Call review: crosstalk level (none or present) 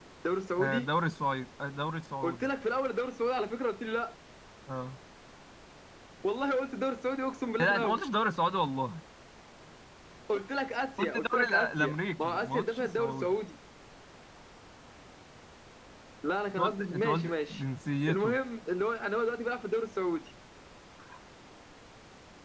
present